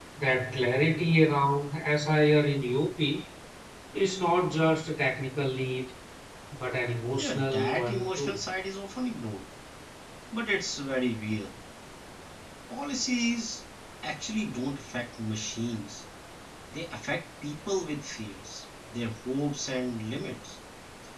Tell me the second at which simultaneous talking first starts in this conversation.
7.2 s

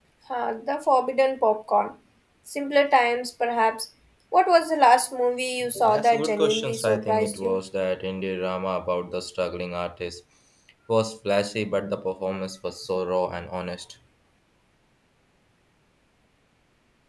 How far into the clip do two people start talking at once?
5.6 s

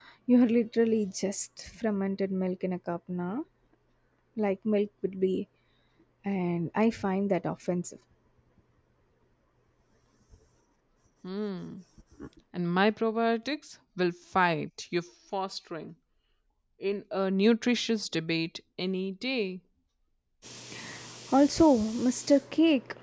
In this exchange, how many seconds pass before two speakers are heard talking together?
none

